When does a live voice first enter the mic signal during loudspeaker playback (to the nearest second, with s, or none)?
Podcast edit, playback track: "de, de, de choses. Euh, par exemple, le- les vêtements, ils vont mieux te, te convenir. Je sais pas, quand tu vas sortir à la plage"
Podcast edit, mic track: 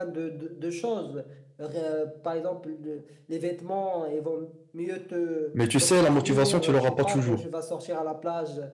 6 s